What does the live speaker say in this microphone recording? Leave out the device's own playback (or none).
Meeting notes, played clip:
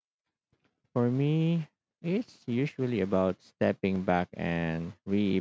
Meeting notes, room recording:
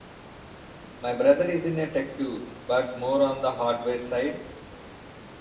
My brother is in a tech too, but more on the hardware side.